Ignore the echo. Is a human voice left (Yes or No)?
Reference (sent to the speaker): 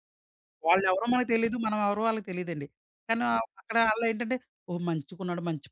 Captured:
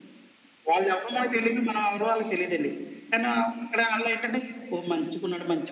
No